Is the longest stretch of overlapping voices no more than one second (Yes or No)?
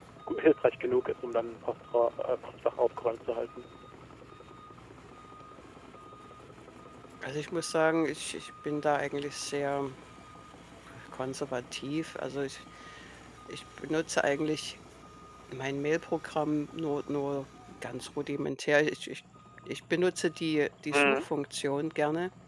Yes